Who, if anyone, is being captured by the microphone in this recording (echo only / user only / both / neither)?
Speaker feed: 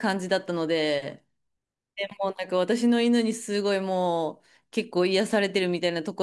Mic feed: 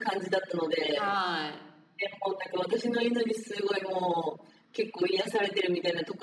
both